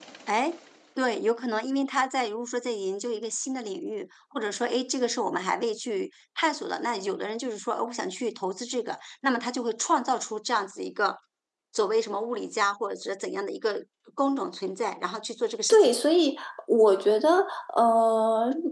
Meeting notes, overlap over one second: none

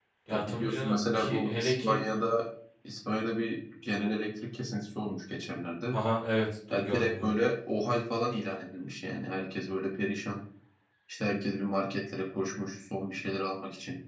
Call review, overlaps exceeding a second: present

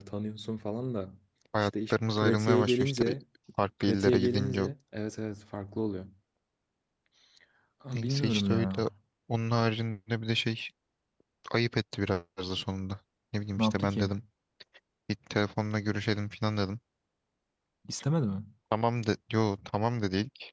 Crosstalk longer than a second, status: present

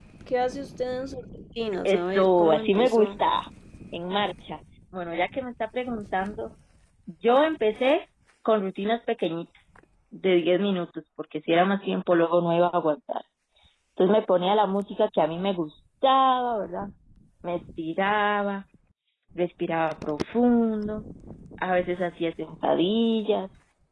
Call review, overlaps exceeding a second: present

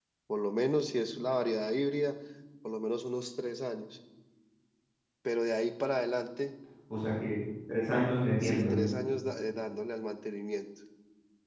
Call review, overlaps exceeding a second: none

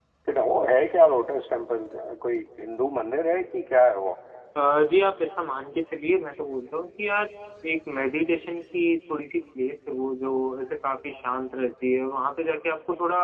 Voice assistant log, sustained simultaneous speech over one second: none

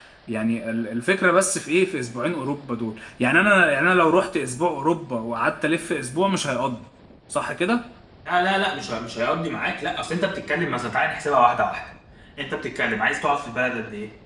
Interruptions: none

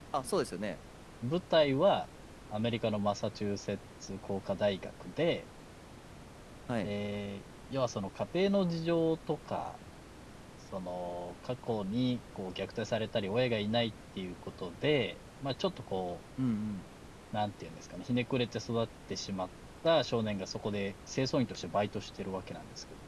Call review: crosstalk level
none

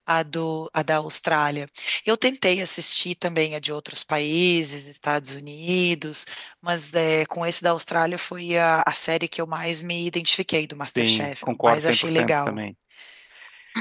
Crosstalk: present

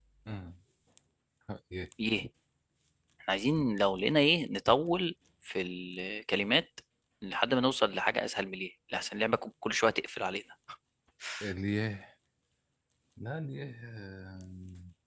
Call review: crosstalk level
none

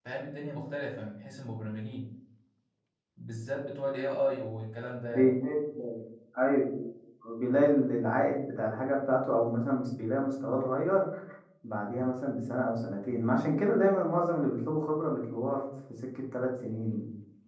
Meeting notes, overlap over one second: none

